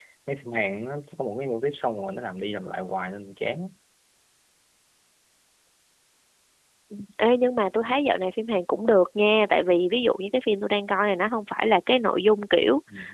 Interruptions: none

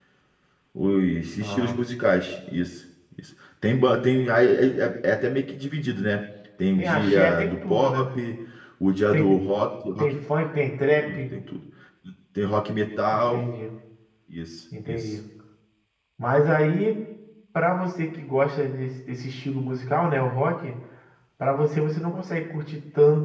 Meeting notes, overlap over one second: present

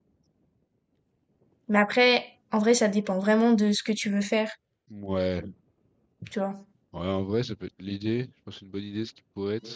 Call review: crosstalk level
none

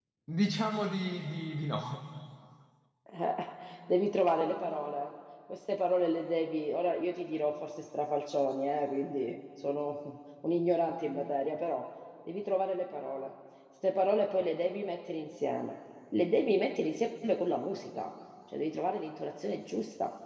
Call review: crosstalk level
none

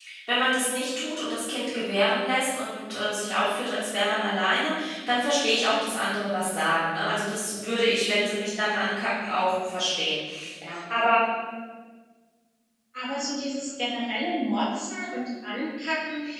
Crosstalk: none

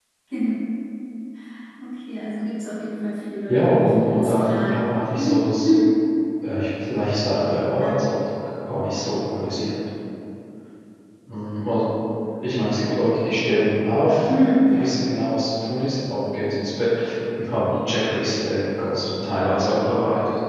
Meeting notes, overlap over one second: present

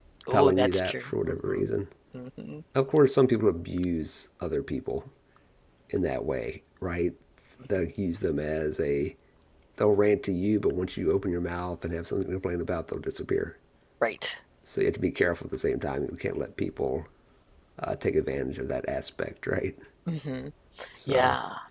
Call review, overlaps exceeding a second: present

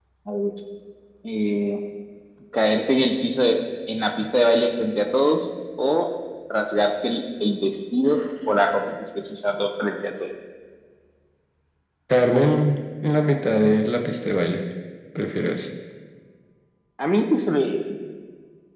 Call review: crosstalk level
none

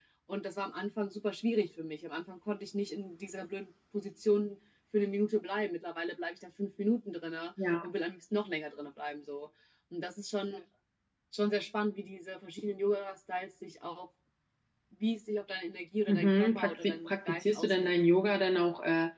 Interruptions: present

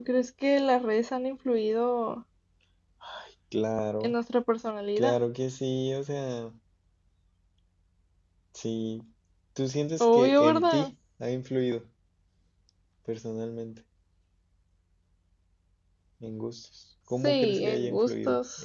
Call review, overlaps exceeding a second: present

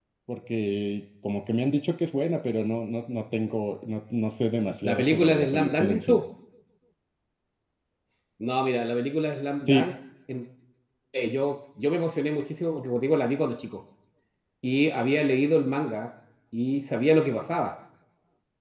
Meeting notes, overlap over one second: present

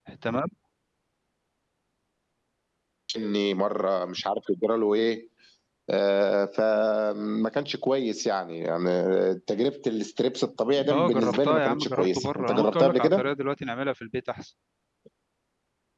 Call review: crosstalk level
present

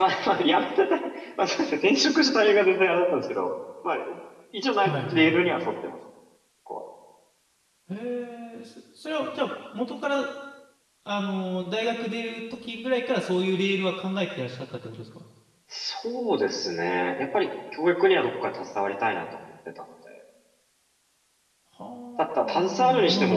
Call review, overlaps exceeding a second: present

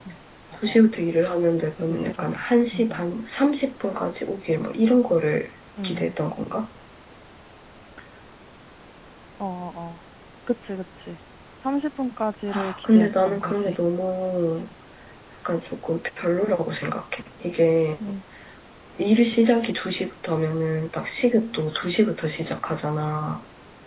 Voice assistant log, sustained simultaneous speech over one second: present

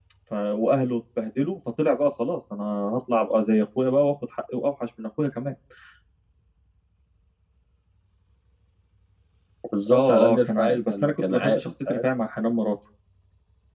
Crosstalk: present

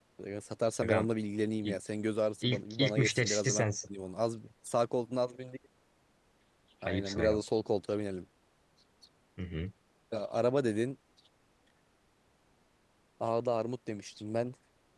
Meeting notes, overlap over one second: present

